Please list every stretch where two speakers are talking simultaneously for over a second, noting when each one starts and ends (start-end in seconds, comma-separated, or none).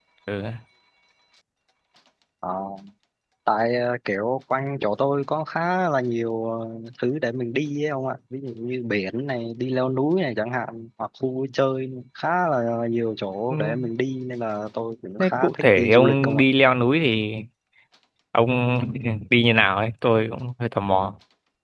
15.2-16.4